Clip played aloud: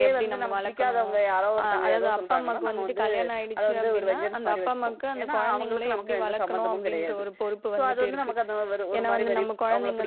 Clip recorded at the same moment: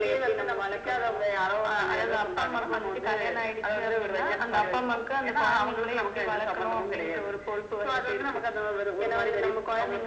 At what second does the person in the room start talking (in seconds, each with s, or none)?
none